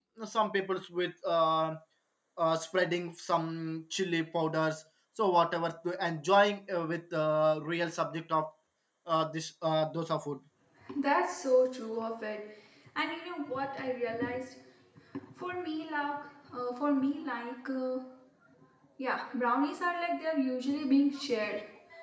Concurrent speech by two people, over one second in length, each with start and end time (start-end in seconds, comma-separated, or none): none